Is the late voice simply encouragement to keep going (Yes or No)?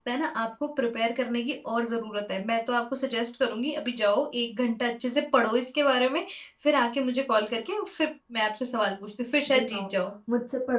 No